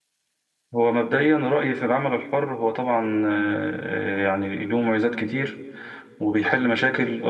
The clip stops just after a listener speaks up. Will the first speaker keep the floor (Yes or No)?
Yes